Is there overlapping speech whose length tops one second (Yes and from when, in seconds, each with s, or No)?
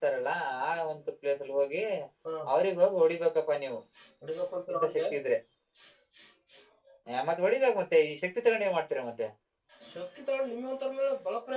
No